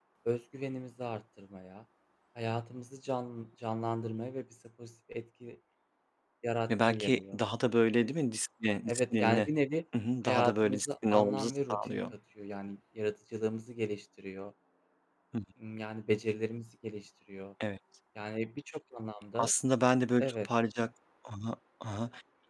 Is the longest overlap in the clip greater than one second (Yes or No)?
Yes